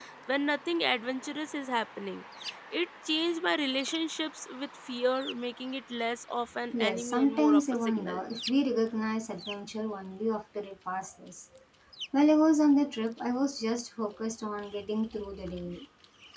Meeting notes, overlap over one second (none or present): present